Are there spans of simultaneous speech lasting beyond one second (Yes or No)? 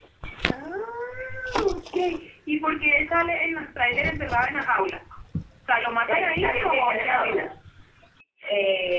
Yes